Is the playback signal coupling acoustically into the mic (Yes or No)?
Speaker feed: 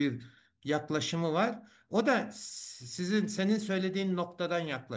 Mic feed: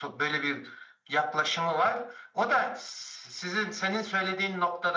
Yes